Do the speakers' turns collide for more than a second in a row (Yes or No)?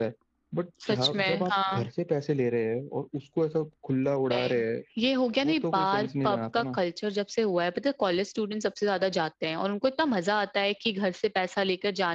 Yes